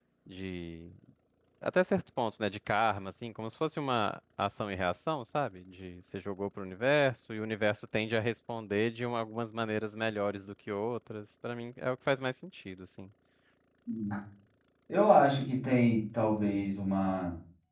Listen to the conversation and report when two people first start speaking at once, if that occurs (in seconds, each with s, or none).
none